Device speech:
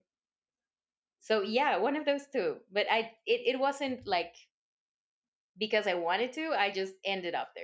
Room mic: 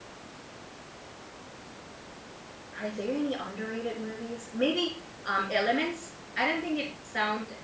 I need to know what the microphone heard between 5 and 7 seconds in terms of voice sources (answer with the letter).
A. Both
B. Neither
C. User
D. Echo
C